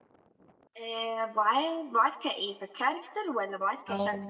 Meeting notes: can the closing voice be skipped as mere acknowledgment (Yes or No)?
No